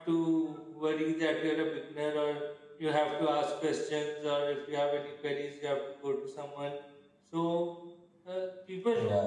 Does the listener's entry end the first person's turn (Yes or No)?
No